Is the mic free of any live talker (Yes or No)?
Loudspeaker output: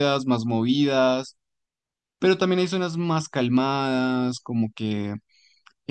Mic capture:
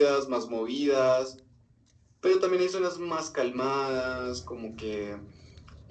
Yes